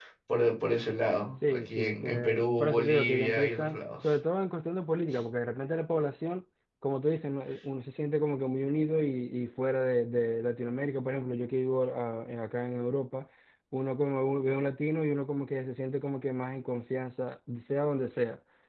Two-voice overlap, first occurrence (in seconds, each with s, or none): 1.4 s